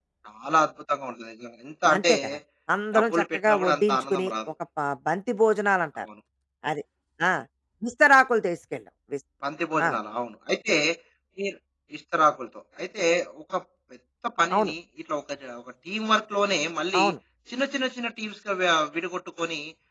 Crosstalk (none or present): present